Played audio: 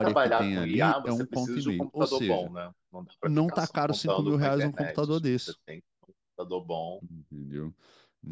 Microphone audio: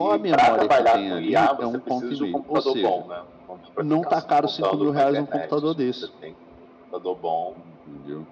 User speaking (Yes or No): No